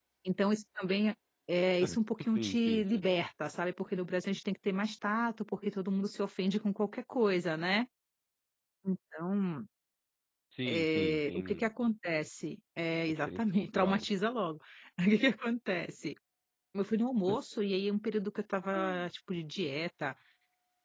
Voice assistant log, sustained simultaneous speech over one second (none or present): present